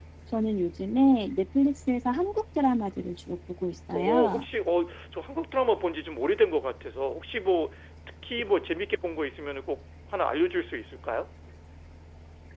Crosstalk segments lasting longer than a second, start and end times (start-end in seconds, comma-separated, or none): none